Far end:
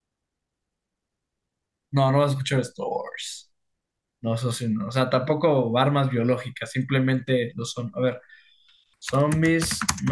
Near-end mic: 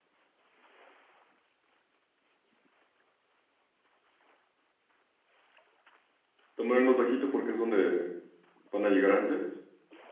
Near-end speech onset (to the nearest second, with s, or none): 7 s